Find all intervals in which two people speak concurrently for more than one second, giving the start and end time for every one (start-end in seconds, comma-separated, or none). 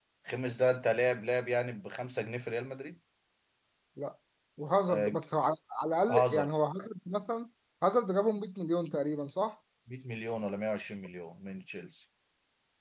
none